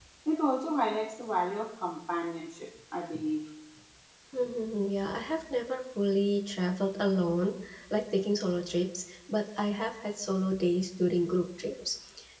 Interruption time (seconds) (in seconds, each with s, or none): none